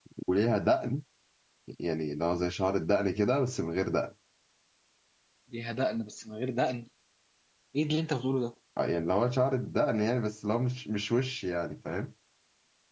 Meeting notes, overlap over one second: none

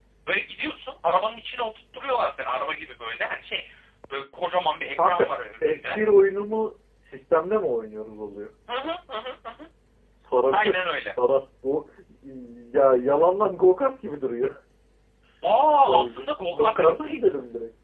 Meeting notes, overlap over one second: present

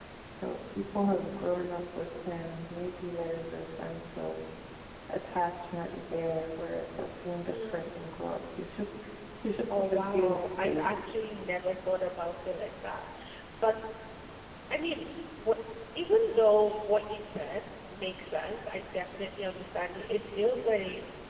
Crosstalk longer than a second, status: present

